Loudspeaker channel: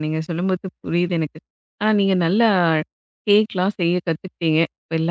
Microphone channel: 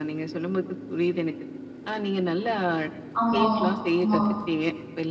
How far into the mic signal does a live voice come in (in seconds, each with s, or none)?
3.2 s